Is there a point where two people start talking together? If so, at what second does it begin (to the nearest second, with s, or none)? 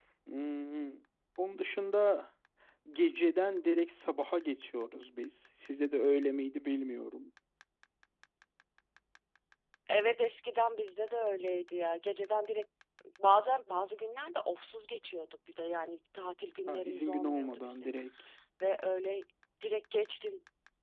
17 s